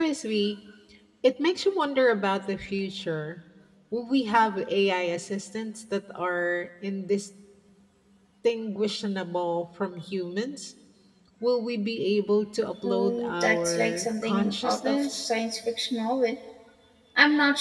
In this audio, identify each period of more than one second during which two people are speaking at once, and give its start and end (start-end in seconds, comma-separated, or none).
12.8-15.3